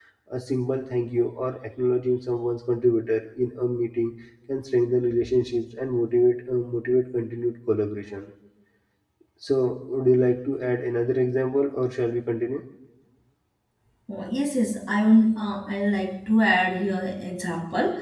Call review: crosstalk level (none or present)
none